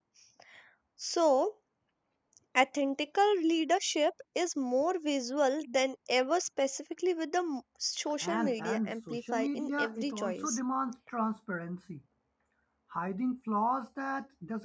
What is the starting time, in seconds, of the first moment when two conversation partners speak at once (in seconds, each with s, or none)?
8.2 s